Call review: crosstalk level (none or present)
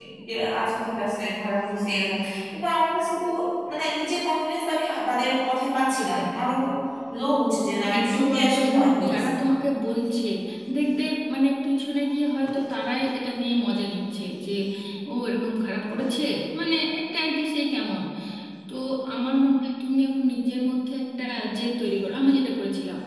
present